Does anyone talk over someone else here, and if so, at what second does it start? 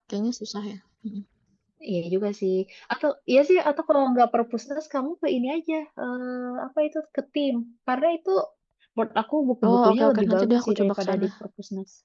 9.7 s

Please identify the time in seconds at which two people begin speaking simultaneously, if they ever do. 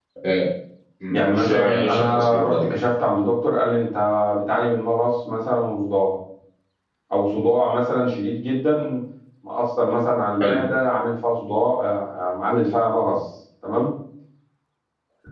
1.1 s

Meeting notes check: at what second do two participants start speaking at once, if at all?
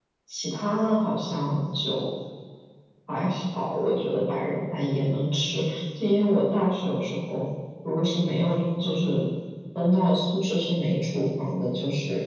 none

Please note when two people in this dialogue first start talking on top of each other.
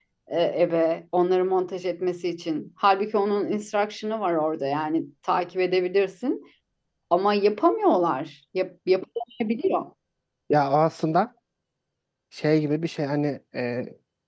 none

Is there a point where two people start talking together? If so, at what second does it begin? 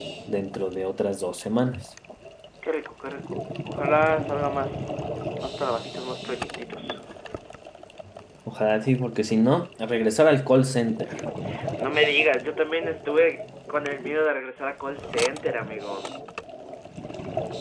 none

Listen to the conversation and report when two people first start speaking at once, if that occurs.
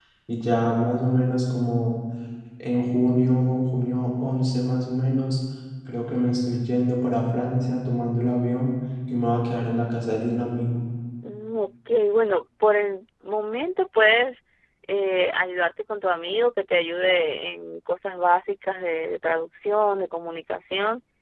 none

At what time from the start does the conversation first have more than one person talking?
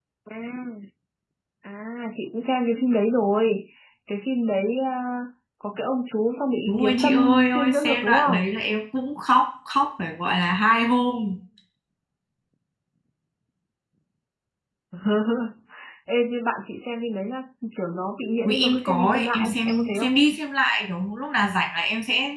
6.7 s

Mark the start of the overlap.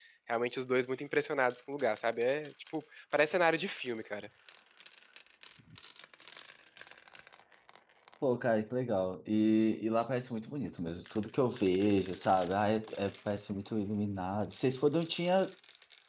none

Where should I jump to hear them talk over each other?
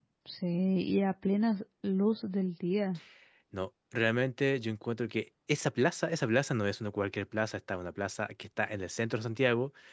none

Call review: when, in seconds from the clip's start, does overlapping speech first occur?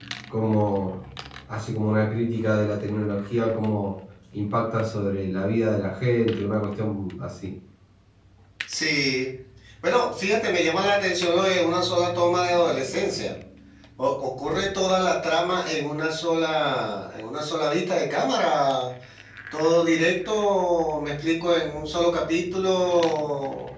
none

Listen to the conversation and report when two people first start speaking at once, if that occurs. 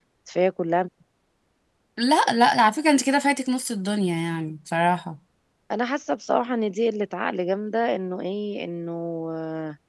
none

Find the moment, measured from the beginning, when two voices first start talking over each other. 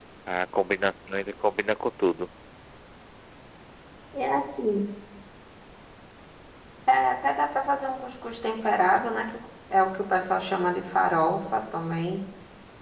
none

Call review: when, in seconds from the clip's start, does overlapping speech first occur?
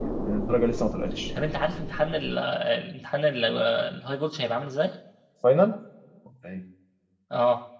none

